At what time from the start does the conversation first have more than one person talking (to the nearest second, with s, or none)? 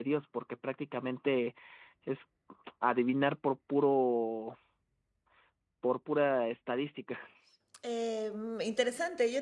none